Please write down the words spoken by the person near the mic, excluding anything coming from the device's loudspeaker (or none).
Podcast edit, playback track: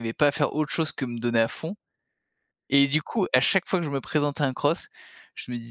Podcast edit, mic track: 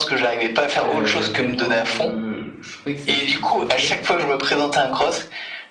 Heu, tellement je je trouvais que ça faisait souffrir.